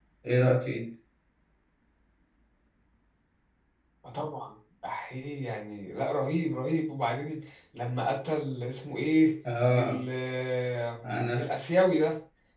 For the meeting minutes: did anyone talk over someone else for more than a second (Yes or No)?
No